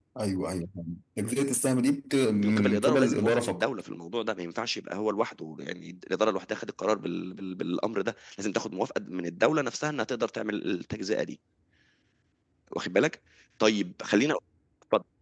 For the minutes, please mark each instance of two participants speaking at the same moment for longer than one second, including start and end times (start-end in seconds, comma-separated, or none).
2.4-3.6